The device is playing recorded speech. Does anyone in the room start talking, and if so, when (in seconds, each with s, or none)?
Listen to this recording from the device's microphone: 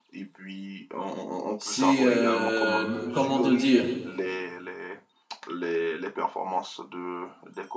1.6 s